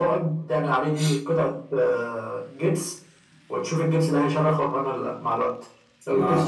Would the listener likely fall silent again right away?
Yes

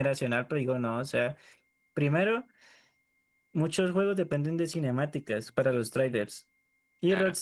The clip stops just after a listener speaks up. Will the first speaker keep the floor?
Yes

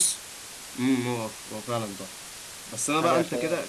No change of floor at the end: Yes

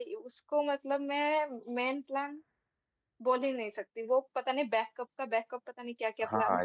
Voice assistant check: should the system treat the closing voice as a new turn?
Yes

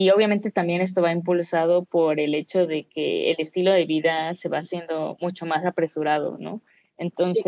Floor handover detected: No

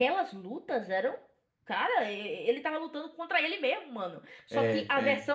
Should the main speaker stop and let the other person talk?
No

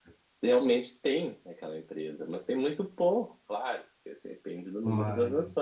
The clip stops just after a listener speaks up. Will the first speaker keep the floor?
Yes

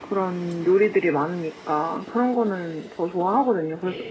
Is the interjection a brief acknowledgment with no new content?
Yes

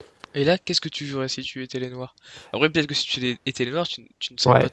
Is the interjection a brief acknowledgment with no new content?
No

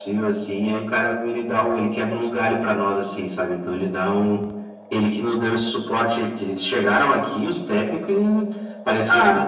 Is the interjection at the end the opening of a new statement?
No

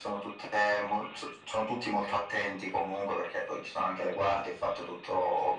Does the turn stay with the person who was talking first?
Yes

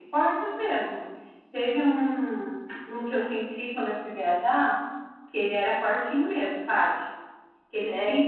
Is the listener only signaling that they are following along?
Yes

